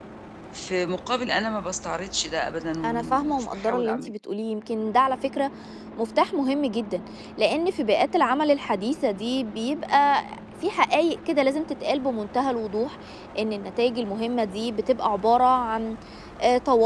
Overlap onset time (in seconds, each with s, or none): 2.8 s